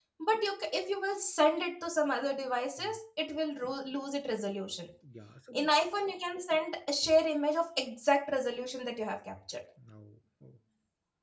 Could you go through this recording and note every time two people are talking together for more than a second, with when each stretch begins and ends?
none

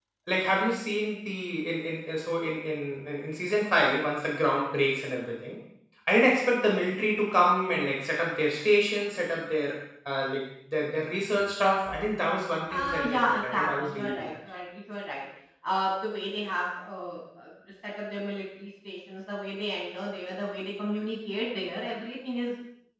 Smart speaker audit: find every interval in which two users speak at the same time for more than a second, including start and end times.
12.7-14.3

